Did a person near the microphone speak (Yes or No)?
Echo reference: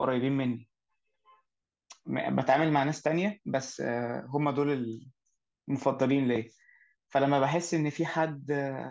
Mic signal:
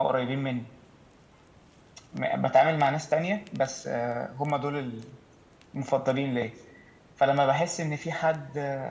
No